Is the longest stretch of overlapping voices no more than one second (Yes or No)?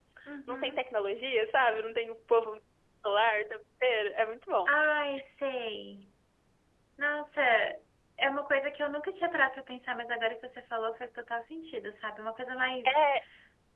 Yes